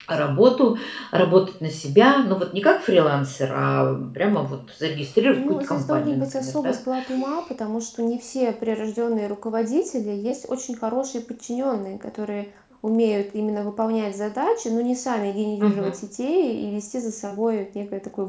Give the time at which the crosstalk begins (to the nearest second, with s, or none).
5 s